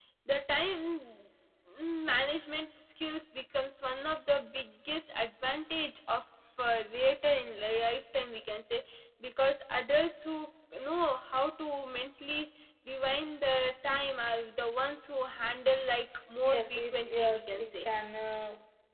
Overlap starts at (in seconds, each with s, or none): 16.4 s